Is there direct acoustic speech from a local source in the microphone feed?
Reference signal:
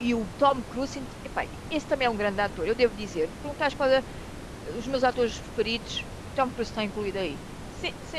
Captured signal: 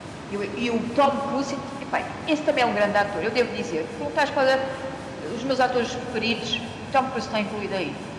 No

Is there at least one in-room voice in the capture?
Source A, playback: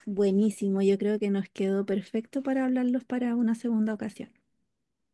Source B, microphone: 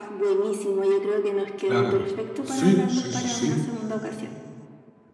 Yes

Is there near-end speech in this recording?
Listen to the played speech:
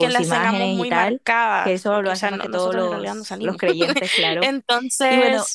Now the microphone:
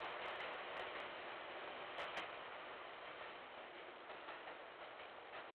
No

